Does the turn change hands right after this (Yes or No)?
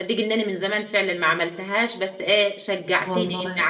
No